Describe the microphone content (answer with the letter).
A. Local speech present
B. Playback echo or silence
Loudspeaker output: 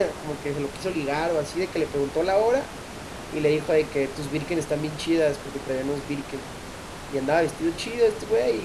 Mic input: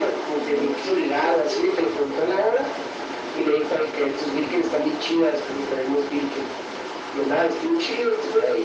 A